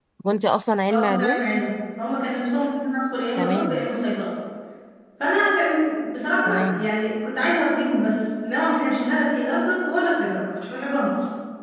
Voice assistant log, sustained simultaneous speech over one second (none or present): none